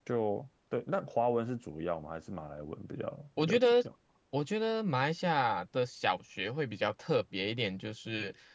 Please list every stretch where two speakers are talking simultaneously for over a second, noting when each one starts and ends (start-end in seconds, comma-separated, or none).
none